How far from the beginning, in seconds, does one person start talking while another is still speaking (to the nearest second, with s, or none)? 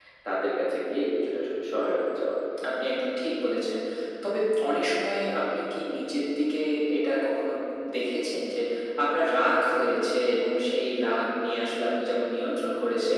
none